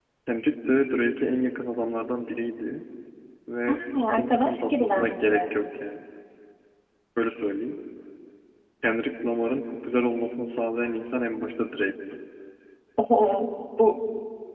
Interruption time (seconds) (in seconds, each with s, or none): 3.7 s